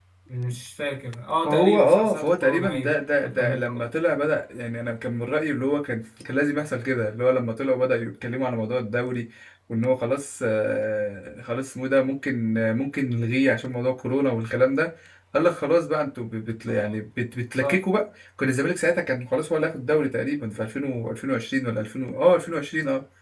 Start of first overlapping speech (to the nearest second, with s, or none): 1 s